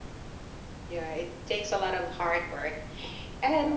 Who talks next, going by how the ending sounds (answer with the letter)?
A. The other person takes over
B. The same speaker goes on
B